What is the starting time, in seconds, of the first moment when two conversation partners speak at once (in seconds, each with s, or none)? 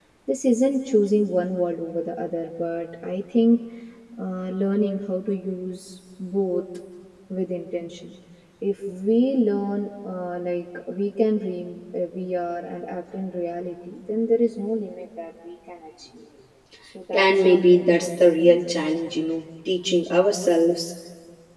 17.1 s